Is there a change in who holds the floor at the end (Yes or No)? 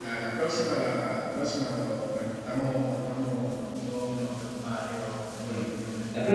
Yes